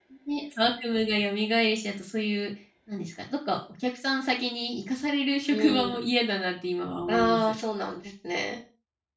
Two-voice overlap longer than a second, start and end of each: none

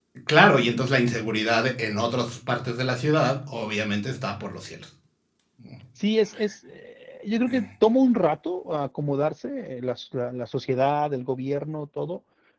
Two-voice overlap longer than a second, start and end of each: none

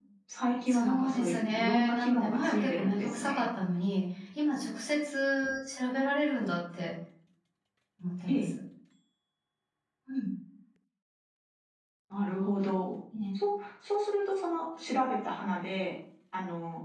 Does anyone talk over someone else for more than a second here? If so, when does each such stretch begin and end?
0.7-3.5

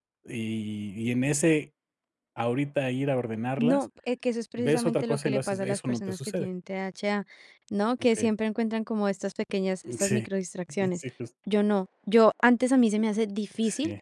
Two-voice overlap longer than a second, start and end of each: 4.6-6.5

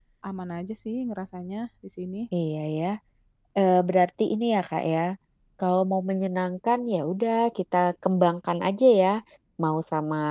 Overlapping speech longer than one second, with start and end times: none

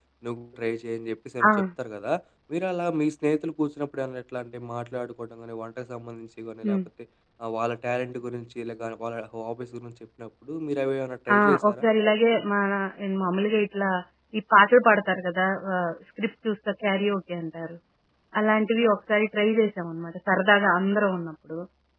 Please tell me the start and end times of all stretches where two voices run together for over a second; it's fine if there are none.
none

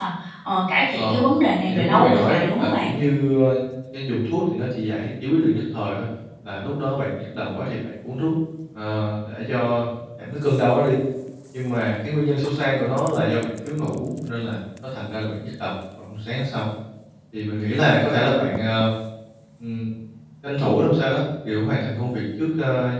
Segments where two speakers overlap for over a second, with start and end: 1.7-2.9

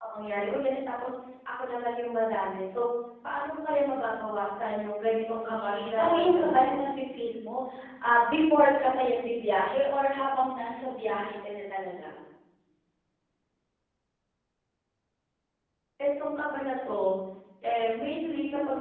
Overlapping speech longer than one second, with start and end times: 5.3-6.8

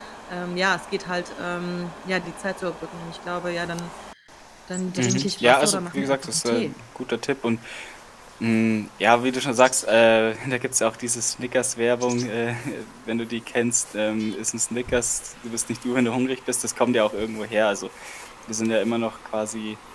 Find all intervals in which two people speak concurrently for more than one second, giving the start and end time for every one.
5.0-6.7

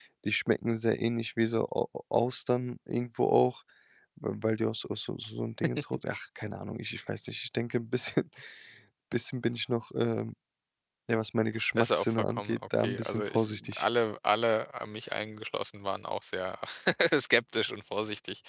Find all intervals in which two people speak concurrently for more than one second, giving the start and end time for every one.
11.8-13.8

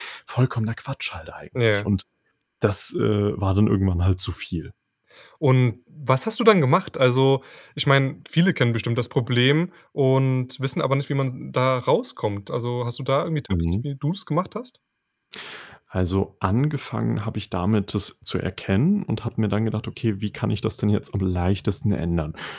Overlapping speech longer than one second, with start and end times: none

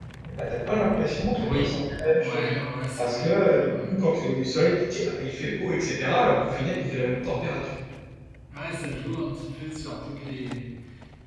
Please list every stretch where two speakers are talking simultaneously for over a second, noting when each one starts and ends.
none

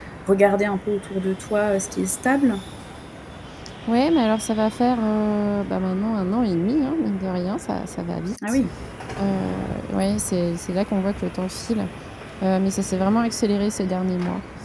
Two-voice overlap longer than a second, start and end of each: none

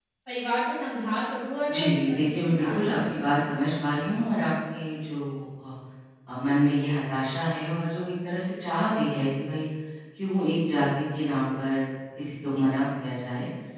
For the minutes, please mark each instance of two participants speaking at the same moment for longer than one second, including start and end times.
1.7-3.5

